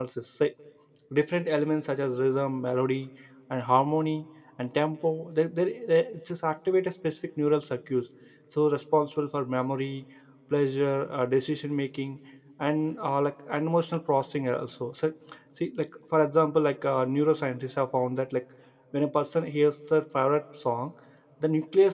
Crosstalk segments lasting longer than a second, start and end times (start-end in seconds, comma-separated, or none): none